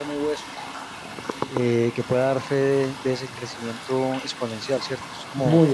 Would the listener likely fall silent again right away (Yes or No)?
No